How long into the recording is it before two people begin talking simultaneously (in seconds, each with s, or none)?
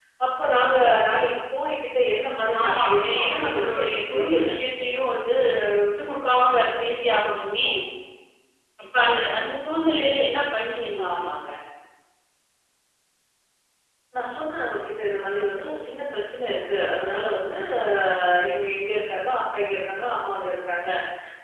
2.6 s